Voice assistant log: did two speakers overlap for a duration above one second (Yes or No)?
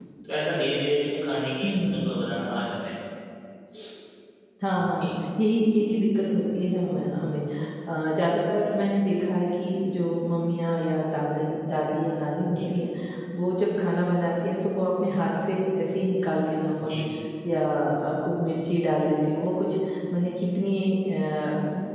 No